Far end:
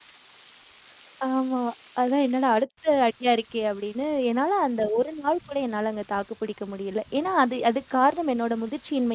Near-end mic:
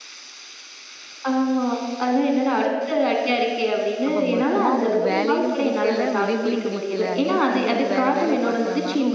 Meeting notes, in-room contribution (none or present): present